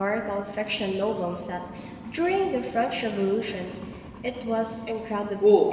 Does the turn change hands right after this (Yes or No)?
Yes